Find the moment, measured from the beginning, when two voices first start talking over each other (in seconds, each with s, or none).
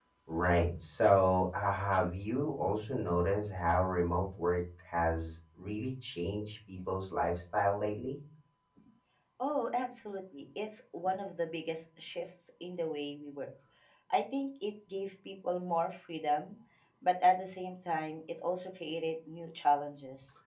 none